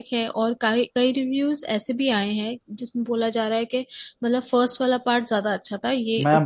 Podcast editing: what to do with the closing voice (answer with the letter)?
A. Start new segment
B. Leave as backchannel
A